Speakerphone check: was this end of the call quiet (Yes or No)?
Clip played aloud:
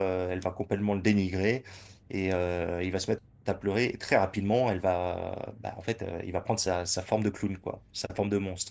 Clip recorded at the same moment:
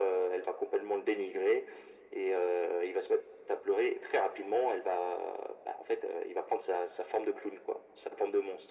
Yes